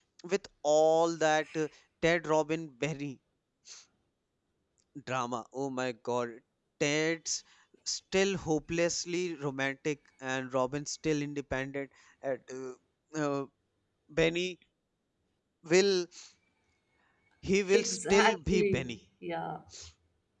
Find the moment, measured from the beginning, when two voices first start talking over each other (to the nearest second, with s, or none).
18 s